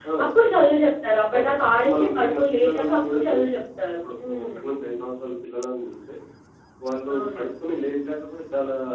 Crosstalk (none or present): present